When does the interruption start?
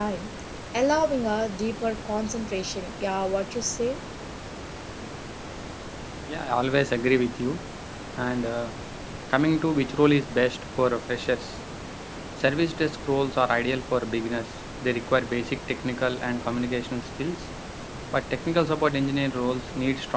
none

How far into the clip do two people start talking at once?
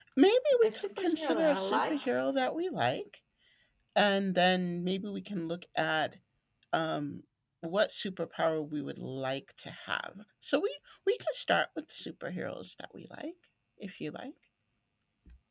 0.6 s

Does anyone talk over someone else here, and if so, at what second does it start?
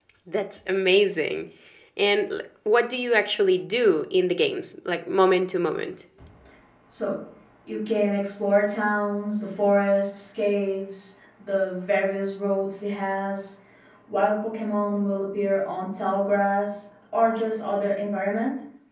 none

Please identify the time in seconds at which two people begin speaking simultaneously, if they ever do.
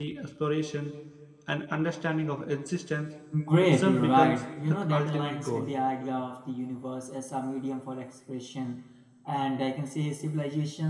3.6 s

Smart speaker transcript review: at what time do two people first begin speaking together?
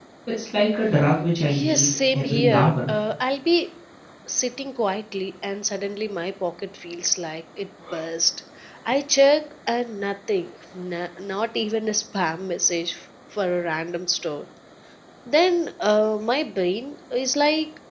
1.5 s

